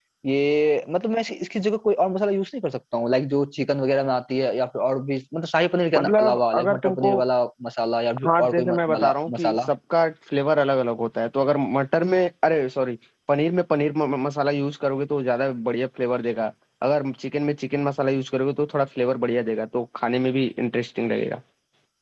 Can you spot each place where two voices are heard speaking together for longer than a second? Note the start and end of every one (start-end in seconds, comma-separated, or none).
6.0-7.2, 8.2-9.7